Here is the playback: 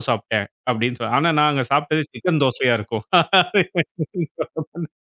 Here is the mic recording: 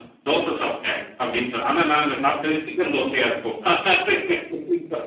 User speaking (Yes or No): No